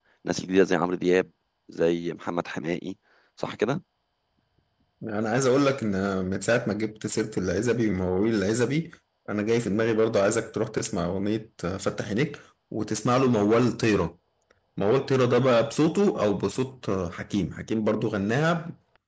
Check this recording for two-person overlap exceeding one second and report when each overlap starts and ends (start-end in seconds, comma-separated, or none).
none